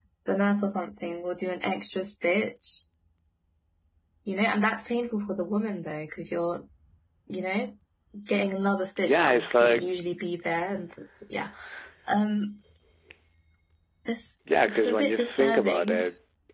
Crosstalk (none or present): present